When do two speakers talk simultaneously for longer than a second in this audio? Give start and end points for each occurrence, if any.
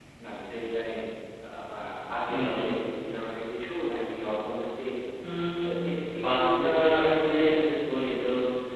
6.3-7.8

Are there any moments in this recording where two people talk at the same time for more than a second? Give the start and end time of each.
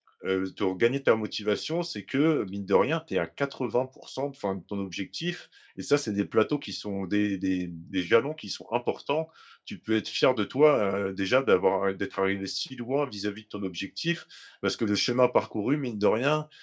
none

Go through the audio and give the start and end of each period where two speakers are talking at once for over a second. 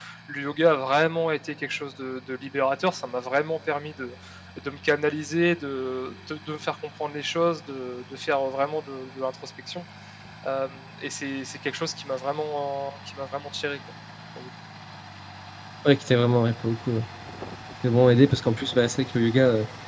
none

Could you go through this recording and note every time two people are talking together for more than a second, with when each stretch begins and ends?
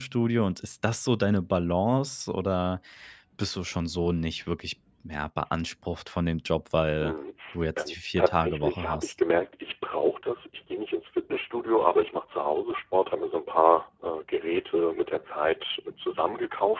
7.8-9.1

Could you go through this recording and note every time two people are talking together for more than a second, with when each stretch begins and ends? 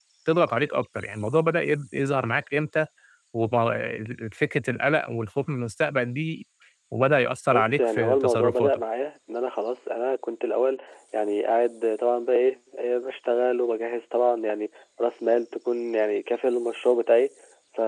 7.5-8.8

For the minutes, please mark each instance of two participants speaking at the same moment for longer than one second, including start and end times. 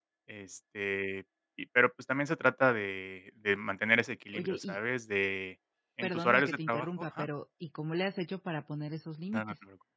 6.0-7.2

